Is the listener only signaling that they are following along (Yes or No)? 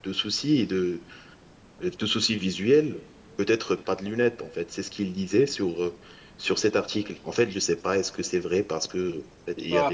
No